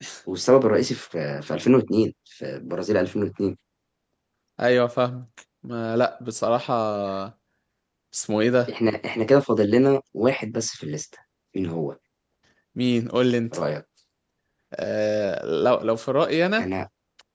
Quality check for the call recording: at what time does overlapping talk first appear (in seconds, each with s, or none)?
none